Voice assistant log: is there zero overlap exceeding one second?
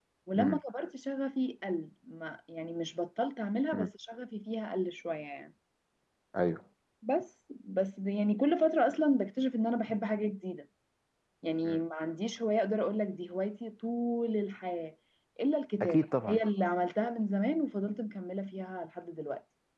Yes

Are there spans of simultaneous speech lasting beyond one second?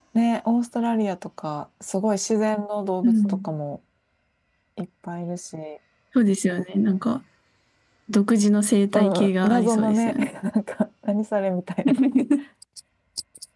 Yes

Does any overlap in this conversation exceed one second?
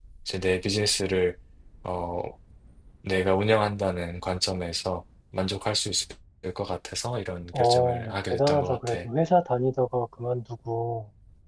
Yes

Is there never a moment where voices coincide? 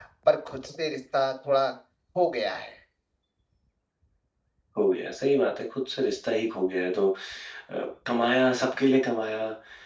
Yes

